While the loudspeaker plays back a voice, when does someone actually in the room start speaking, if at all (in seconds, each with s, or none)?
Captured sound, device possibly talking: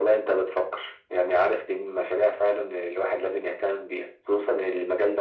none